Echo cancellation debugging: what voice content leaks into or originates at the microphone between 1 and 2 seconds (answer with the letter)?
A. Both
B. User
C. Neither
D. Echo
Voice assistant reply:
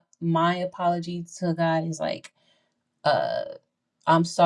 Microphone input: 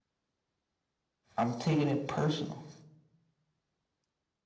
B